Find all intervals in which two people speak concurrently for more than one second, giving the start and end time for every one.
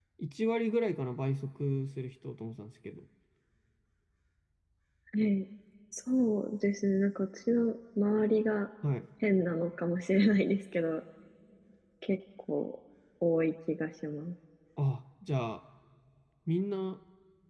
none

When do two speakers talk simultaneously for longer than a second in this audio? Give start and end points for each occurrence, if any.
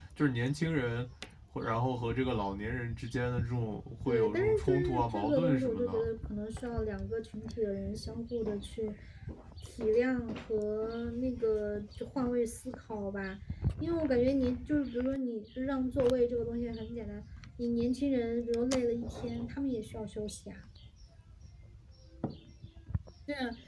4.1-6.1

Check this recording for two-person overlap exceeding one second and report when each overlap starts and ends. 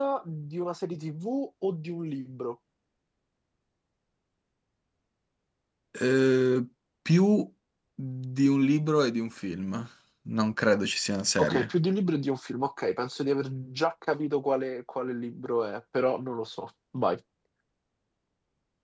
none

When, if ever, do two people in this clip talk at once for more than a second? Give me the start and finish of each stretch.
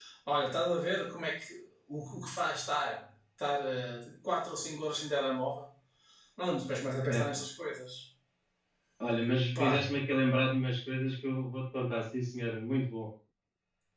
none

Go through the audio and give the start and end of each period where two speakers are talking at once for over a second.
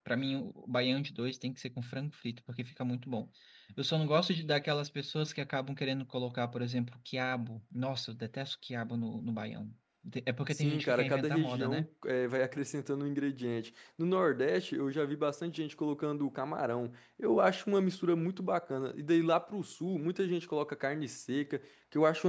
10.5-11.8

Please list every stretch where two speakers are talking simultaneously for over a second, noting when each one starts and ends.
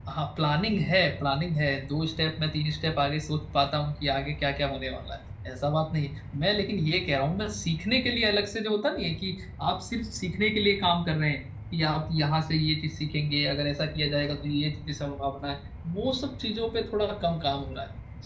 none

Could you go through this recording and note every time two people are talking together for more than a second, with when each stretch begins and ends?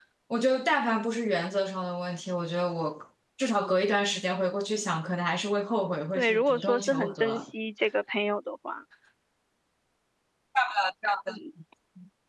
6.2-7.4

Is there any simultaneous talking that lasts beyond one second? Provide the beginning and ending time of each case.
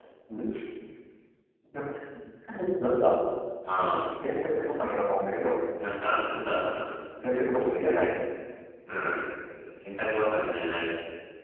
none

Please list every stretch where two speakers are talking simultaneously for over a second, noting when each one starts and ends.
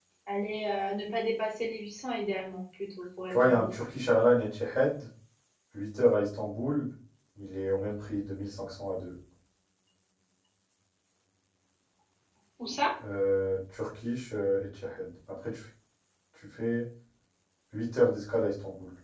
none

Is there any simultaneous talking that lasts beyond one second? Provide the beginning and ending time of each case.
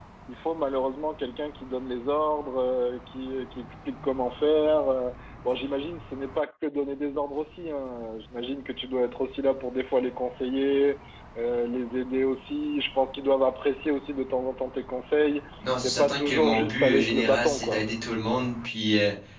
15.8-17.8

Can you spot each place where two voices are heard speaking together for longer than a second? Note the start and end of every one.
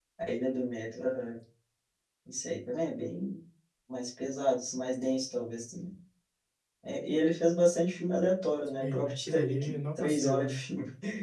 8.8-10.6

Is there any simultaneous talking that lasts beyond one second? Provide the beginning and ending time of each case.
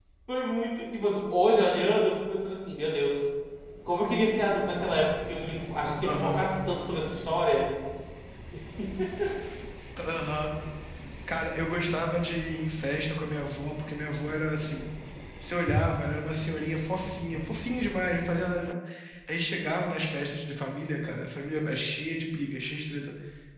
none

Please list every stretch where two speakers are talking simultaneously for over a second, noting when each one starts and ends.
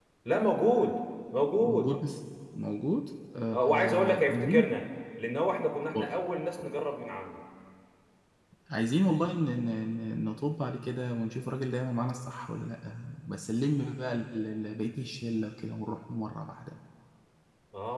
3.5-4.7

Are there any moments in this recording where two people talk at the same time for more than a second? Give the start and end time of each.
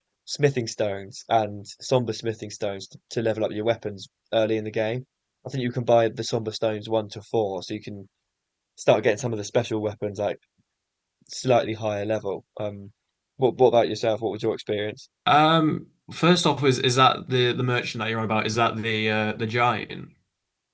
none

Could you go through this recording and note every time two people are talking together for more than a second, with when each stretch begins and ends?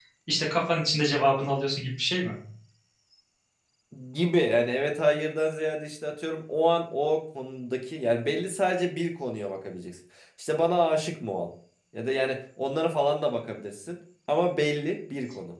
none

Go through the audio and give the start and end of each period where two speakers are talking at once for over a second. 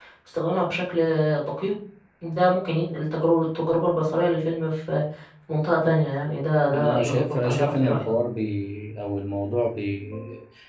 6.7-8.1

